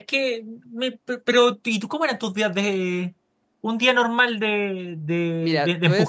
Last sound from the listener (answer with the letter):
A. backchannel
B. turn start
B